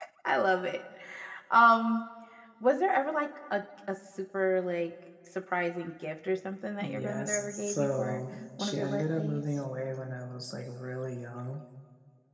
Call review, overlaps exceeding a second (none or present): present